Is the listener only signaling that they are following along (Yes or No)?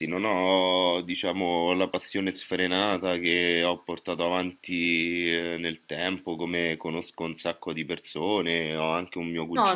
Yes